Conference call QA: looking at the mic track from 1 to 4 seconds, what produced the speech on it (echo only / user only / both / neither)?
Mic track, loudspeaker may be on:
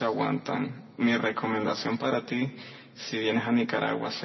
echo only